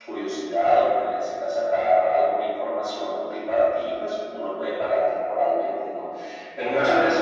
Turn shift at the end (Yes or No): No